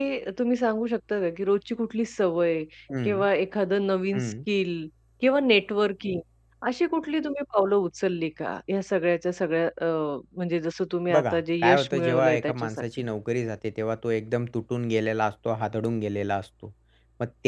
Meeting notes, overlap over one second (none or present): present